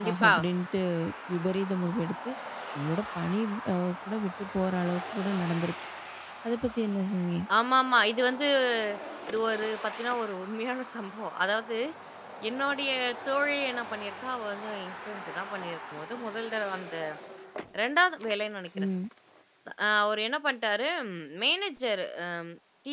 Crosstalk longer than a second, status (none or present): none